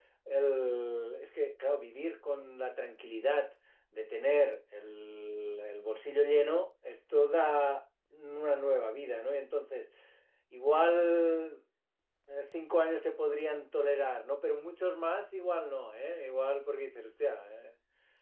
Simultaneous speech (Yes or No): No